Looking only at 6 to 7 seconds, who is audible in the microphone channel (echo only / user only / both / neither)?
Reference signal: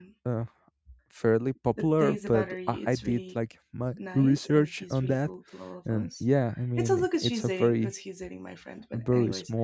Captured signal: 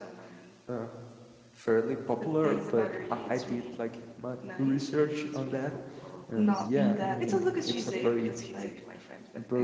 both